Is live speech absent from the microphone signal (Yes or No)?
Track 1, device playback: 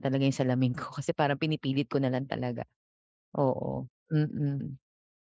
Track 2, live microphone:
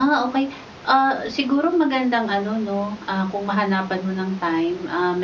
No